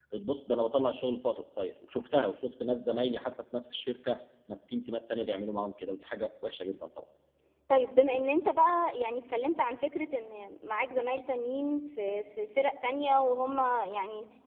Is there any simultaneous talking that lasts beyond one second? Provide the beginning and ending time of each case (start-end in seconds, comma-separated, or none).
none